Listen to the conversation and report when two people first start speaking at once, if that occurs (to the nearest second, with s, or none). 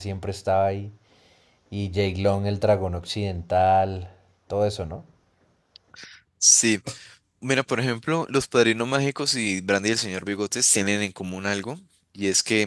none